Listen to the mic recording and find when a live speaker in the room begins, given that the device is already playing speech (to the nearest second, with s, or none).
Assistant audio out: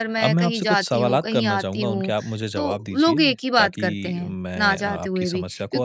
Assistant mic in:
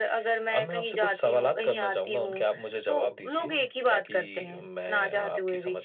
none